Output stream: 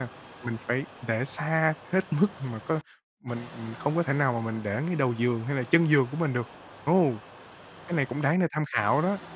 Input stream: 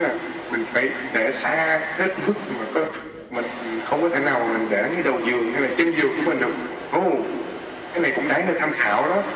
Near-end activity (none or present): none